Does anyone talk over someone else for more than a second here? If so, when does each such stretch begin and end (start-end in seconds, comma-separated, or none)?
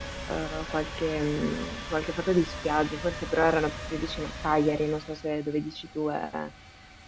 none